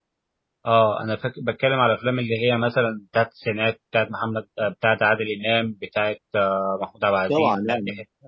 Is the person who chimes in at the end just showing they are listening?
No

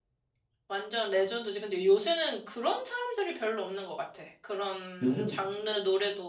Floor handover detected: No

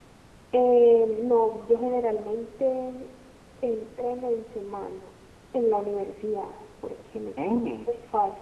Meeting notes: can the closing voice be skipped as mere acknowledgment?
Yes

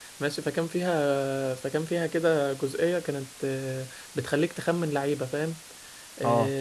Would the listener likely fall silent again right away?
Yes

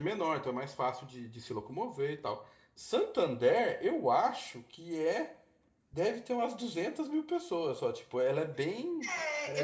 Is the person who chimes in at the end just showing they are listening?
No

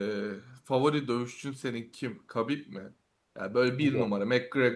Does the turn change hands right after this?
No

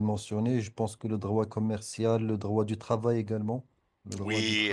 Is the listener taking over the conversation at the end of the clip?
Yes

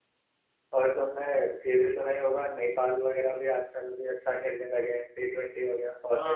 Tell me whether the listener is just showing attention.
No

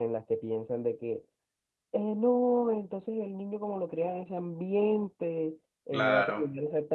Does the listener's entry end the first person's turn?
No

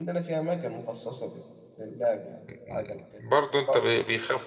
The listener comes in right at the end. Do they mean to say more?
Yes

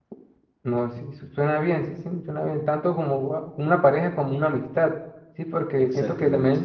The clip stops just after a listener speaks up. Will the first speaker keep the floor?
Yes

